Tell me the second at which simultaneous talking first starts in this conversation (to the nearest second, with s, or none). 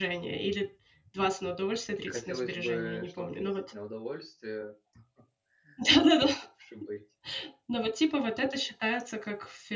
2 s